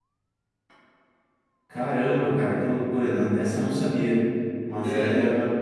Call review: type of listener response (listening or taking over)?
listening